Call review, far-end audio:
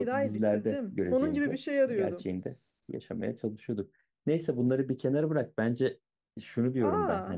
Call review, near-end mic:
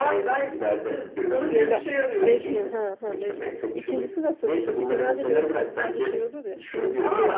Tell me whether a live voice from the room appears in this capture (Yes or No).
Yes